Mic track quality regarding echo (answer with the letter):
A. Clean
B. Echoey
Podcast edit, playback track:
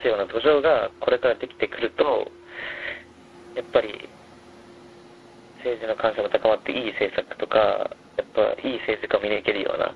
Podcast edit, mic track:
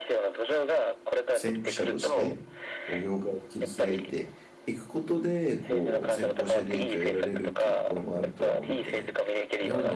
B